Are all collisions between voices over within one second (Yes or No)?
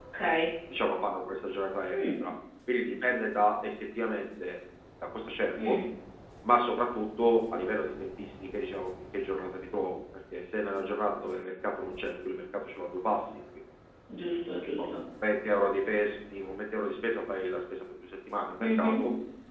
Yes